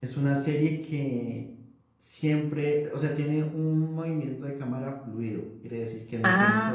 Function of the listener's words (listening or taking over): taking over